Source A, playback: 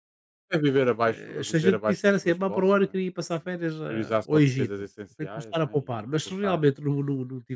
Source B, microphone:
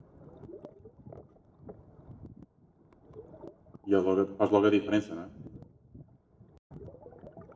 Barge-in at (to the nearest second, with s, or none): 4 s